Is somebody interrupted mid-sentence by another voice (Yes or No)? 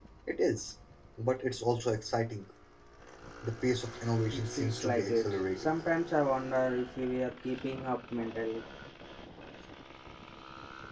Yes